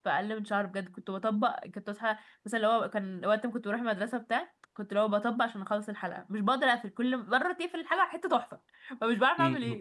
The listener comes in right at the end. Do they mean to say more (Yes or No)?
Yes